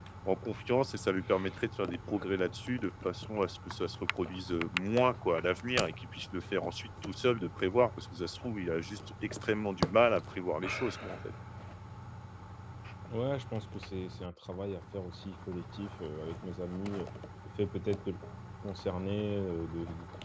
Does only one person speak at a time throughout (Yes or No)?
Yes